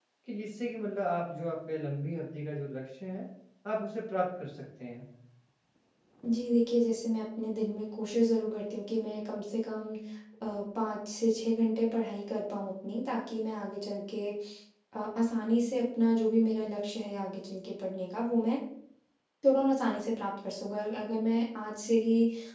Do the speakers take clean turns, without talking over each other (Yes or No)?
Yes